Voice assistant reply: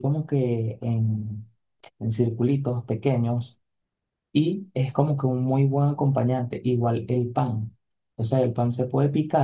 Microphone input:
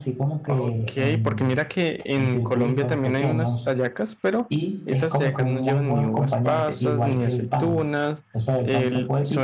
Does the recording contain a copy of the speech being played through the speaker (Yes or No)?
Yes